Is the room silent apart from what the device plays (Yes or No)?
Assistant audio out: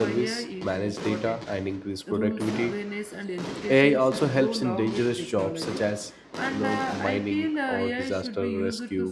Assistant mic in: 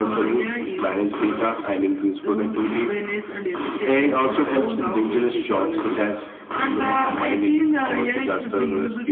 Yes